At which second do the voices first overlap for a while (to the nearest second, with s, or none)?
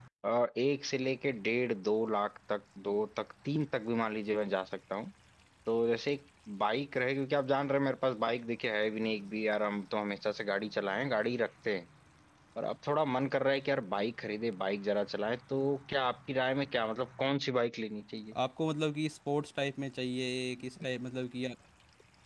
none